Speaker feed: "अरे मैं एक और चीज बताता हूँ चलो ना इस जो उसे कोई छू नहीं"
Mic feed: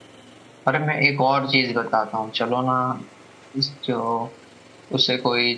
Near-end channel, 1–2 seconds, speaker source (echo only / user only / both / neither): echo only